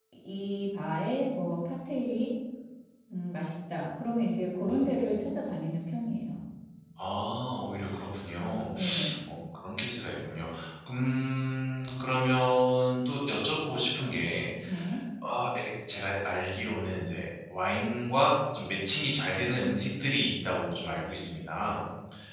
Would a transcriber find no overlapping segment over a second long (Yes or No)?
Yes